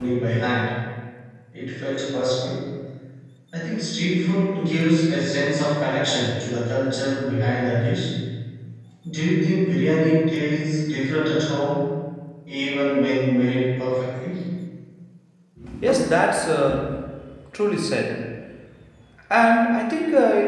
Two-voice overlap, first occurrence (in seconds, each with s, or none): none